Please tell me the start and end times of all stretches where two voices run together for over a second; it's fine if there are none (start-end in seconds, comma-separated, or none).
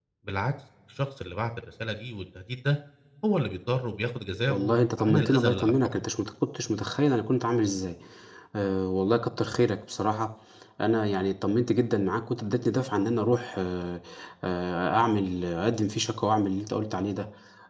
4.5-5.7